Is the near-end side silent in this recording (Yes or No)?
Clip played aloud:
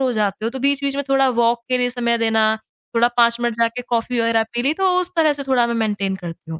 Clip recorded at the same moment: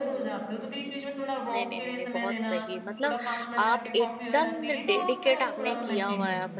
No